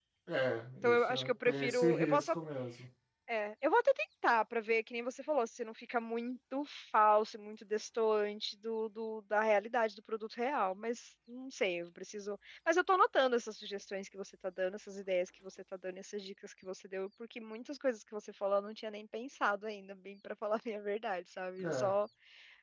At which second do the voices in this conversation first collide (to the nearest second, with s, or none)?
1 s